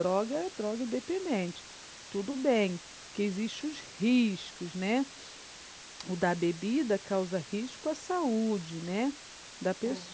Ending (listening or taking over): listening